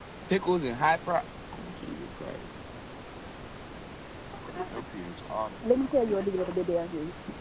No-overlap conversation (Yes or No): Yes